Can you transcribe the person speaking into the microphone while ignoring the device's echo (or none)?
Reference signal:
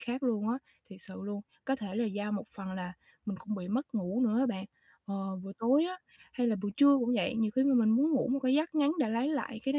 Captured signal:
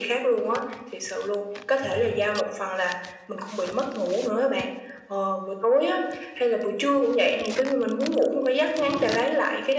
Vậy hả?